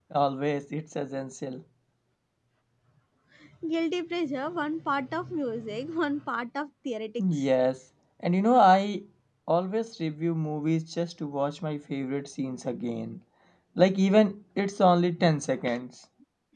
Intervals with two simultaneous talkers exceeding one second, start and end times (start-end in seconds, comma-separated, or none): none